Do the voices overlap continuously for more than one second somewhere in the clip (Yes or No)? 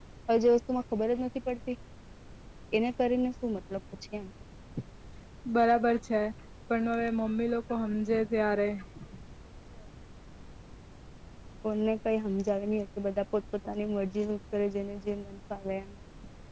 No